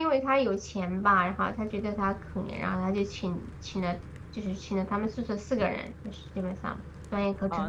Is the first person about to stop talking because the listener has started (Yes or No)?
Yes